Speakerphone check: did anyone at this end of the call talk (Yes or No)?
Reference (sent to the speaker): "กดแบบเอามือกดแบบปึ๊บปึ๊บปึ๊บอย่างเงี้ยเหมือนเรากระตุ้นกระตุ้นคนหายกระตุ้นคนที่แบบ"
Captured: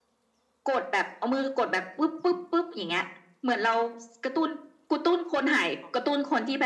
No